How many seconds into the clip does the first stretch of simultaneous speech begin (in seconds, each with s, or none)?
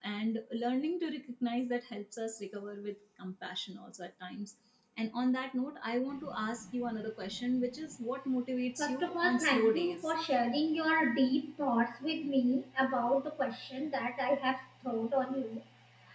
8.8 s